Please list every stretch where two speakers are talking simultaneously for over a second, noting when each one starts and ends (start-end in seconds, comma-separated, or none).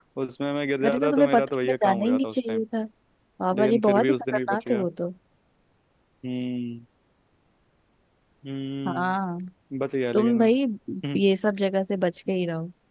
0.8-2.6, 3.6-4.8